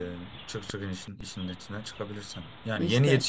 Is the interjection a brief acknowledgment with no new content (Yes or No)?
Yes